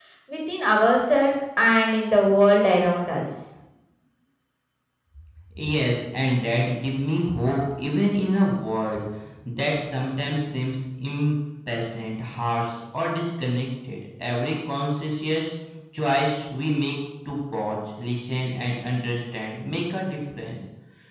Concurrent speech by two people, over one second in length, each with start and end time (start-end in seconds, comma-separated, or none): none